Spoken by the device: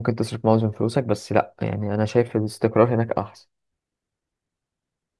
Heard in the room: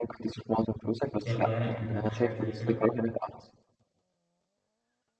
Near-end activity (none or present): present